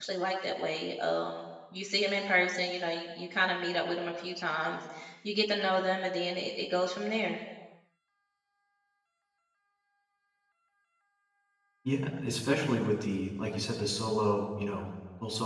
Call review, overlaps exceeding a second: none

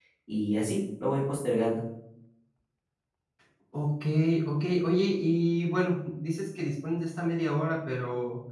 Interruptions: none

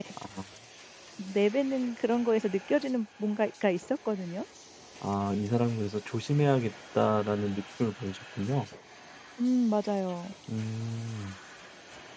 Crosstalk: none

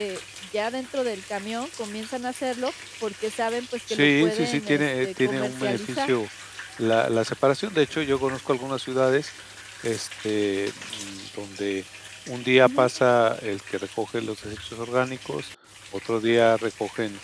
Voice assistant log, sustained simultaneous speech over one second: present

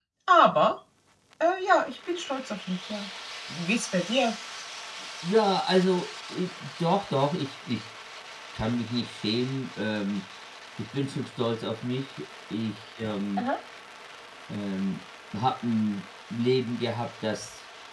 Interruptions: none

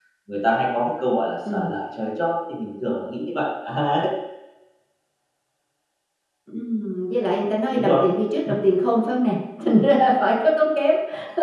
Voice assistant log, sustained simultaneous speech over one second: none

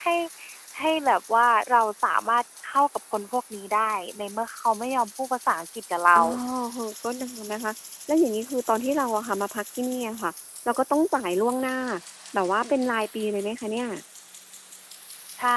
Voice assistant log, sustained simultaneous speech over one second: none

